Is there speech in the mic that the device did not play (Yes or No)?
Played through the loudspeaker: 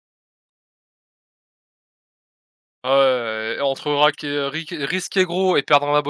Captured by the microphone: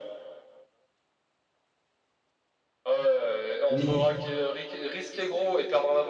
Yes